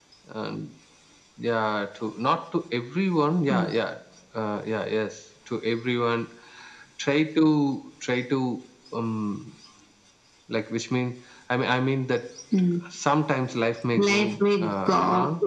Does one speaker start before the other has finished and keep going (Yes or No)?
Yes